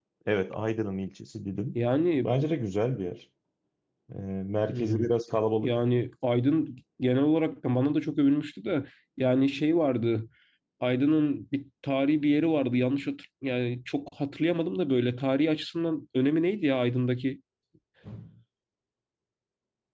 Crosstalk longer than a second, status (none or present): none